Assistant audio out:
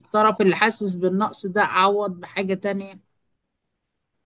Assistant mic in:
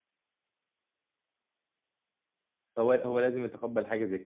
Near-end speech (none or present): present